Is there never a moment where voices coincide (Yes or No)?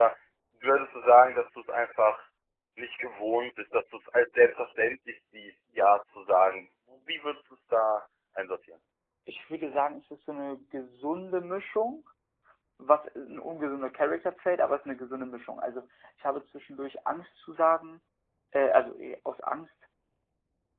Yes